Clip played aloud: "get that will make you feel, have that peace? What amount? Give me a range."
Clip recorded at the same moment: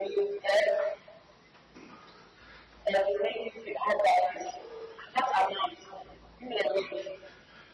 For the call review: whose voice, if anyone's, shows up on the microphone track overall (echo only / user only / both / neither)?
echo only